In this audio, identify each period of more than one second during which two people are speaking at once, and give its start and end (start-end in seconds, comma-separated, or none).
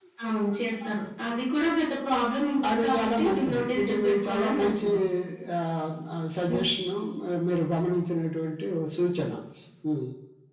2.7-4.9